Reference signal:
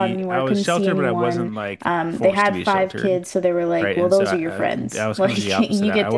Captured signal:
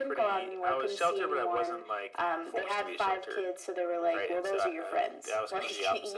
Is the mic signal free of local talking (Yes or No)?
Yes